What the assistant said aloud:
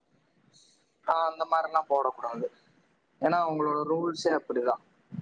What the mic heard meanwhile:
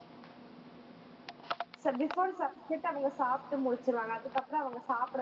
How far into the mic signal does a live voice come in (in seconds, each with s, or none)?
1.8 s